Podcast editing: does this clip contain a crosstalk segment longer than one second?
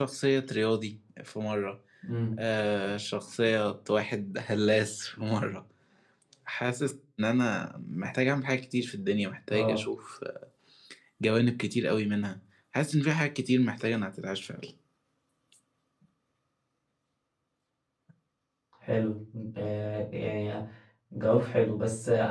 No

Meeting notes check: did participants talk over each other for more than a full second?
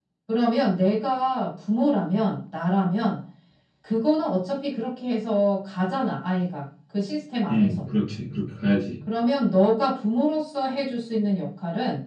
No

